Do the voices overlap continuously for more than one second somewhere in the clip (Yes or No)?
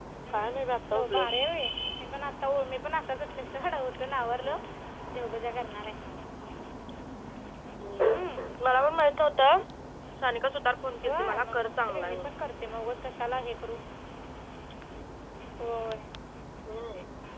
Yes